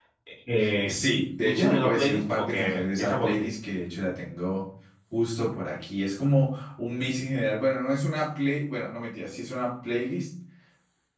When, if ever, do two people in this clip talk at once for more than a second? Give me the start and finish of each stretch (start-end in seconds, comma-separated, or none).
1.4-3.5